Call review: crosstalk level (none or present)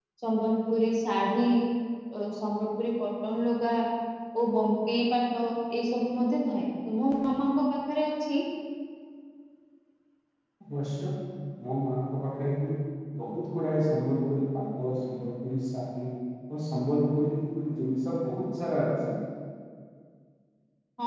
none